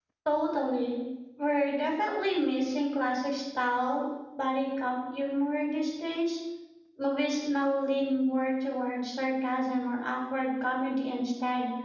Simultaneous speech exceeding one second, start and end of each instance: none

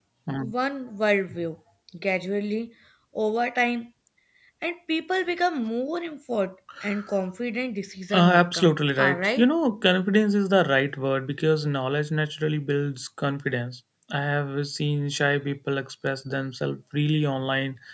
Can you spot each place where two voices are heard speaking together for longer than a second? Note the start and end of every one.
8.1-9.5

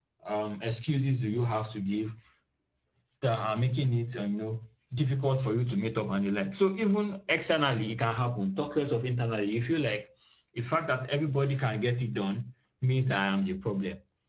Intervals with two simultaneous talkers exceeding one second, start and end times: none

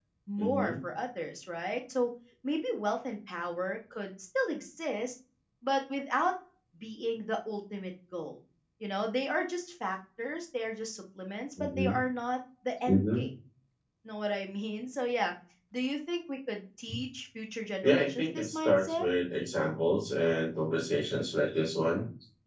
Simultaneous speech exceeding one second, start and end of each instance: 17.8-19.1

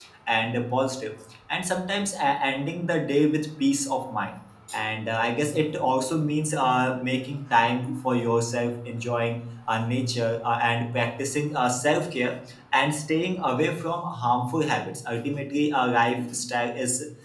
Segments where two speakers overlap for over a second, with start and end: none

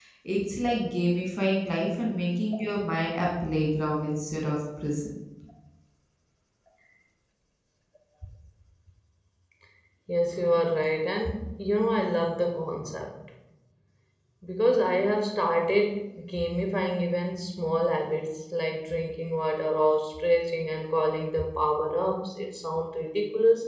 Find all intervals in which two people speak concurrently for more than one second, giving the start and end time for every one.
none

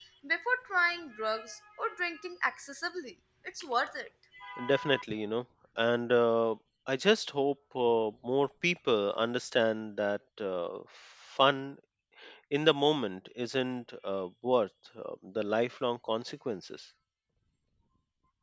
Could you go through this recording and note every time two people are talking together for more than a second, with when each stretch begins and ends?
none

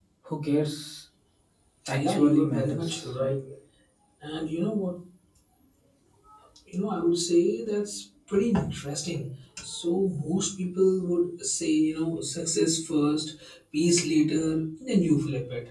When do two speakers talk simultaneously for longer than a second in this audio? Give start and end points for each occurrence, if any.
1.9-3.3

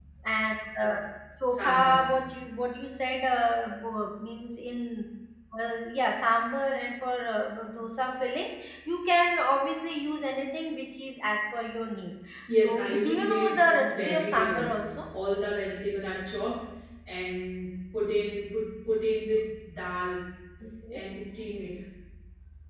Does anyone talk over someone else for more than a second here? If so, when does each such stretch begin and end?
12.6-14.8

